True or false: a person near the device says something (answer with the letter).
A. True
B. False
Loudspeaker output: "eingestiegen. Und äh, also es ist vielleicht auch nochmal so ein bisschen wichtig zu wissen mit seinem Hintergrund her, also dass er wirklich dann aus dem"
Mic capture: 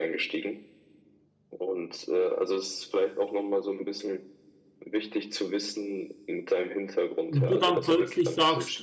A